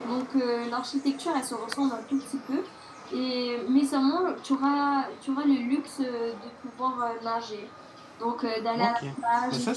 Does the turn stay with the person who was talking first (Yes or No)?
No